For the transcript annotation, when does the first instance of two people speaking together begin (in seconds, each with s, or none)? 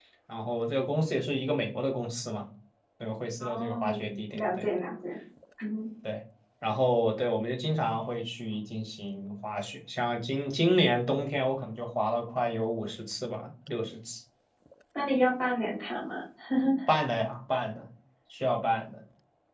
3.4 s